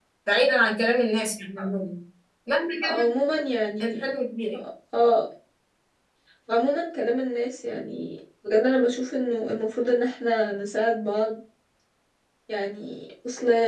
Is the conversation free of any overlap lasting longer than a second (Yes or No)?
Yes